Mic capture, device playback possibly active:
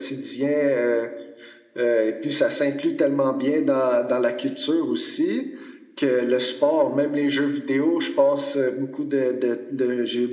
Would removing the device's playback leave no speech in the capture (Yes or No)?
Yes